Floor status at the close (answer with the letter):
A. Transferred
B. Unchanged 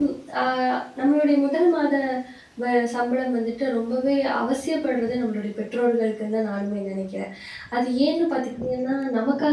B